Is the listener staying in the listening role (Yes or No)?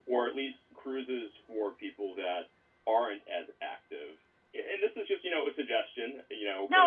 No